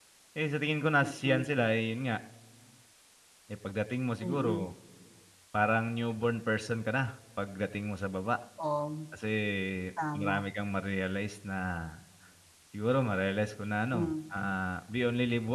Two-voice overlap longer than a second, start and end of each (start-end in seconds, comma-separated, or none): none